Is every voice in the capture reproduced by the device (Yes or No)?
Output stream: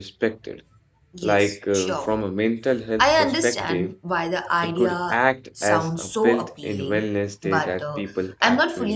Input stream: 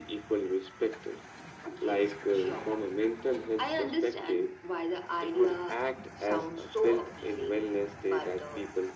Yes